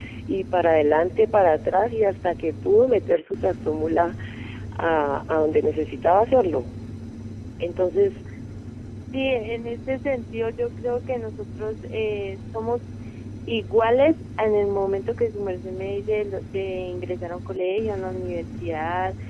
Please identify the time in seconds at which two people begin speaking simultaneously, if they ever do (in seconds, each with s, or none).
none